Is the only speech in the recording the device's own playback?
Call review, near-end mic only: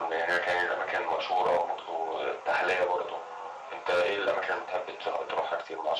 Yes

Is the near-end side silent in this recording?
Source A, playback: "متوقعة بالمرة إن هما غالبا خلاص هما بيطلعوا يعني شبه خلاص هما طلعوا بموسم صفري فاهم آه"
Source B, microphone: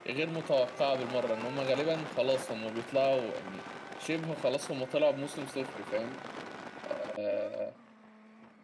Yes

